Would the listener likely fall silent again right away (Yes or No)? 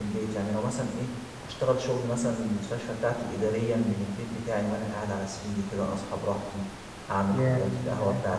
Yes